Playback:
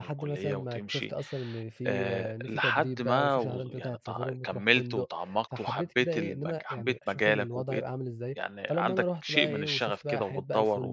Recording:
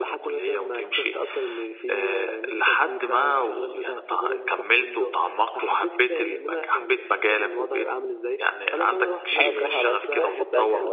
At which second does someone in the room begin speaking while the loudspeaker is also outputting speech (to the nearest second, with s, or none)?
9 s